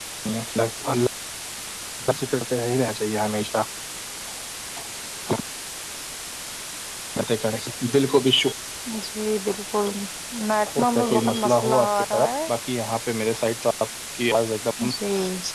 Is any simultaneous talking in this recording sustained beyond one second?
Yes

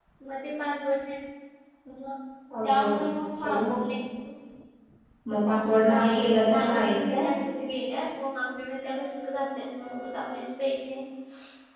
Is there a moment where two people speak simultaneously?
Yes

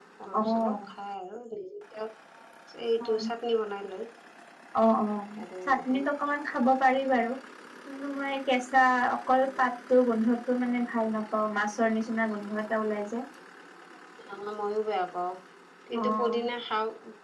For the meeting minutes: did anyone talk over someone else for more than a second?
No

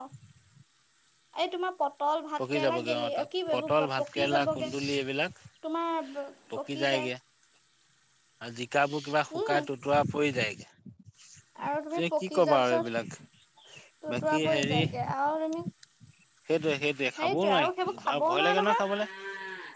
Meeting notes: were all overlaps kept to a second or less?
No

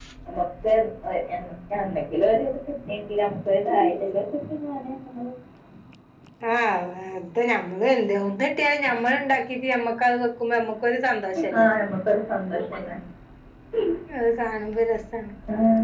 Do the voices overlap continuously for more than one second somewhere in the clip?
No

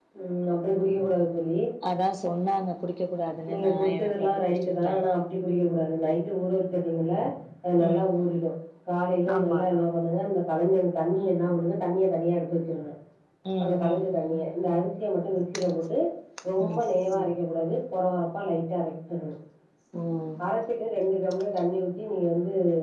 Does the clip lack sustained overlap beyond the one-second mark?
No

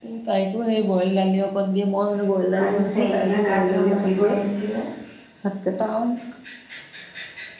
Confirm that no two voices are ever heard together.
No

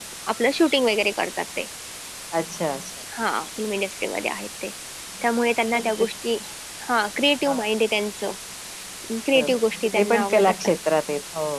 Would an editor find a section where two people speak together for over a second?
Yes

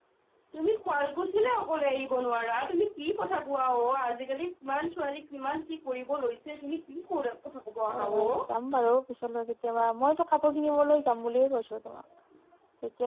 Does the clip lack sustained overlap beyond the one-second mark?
Yes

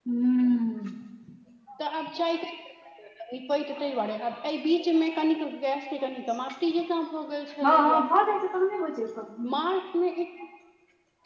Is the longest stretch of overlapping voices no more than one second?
Yes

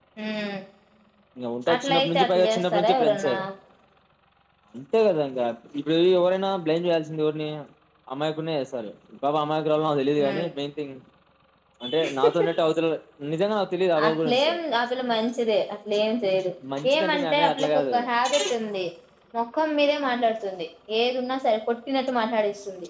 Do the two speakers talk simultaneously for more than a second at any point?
Yes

